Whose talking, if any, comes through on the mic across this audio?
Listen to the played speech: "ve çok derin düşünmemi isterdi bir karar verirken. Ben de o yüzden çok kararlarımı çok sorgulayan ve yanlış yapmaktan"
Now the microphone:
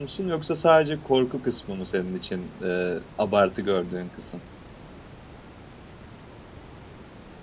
user only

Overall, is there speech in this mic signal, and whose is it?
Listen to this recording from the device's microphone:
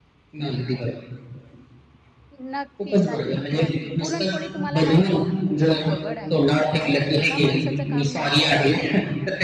both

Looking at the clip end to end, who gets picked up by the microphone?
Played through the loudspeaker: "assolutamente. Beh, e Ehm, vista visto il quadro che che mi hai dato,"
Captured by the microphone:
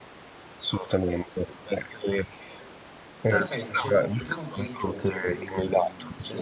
both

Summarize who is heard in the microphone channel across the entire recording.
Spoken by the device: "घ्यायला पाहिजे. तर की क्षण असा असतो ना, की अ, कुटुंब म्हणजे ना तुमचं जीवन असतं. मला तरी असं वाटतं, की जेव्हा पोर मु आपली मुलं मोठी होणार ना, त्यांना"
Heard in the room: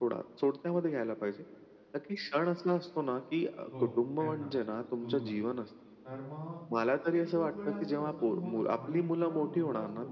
both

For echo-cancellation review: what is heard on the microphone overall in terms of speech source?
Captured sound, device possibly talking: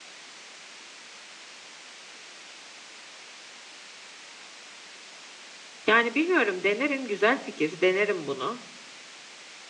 user only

